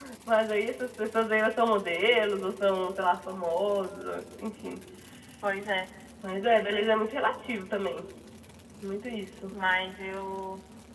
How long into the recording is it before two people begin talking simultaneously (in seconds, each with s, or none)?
none